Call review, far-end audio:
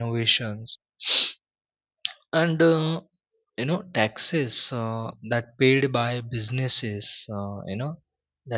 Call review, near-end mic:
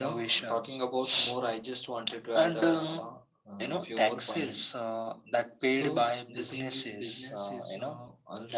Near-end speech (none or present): present